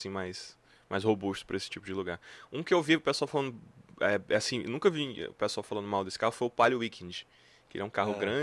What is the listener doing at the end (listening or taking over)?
listening